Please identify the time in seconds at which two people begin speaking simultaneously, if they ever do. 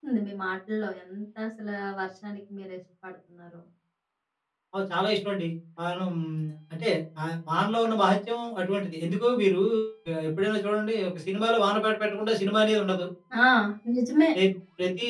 none

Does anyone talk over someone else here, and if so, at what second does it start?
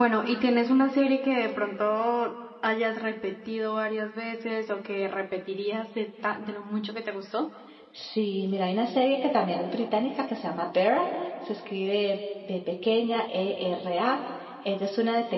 none

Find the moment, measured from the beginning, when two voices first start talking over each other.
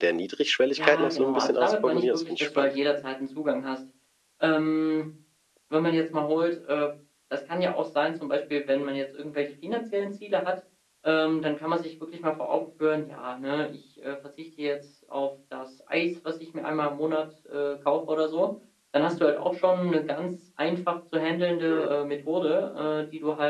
0.8 s

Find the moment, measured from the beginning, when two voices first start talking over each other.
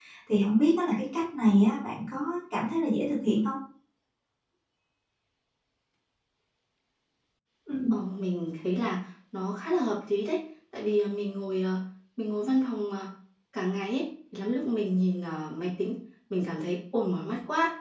none

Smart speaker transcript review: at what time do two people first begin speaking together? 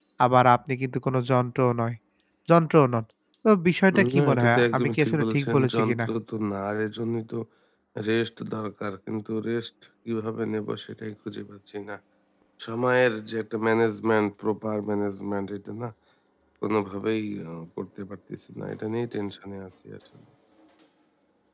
4.0 s

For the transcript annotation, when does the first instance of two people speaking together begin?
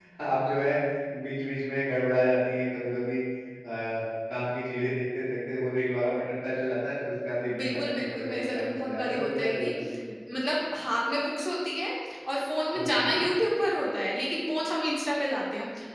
7.6 s

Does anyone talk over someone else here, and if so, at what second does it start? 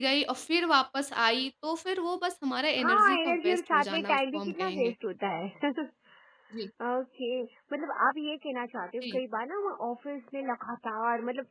2.8 s

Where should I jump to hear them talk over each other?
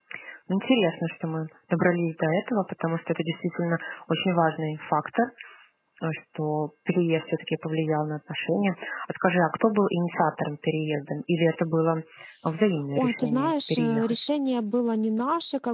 12.9 s

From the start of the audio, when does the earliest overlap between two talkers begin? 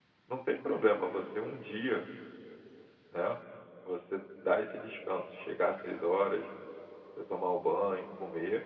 none

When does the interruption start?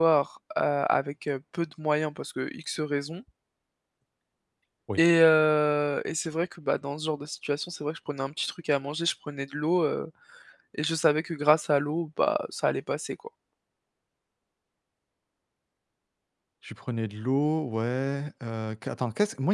none

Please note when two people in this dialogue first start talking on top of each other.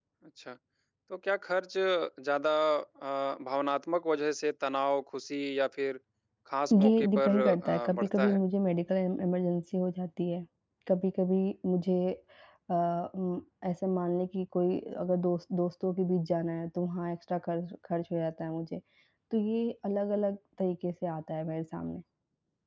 6.7 s

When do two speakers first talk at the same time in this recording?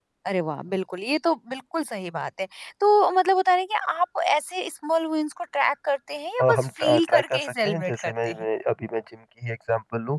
6.4 s

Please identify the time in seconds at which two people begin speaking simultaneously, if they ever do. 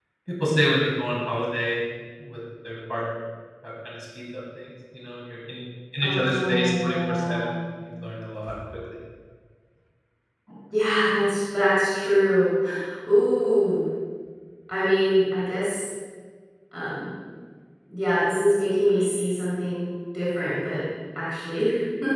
6.0 s

